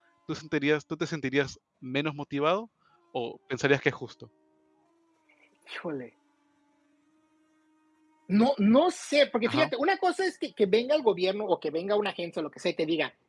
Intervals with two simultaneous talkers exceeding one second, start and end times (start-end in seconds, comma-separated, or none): none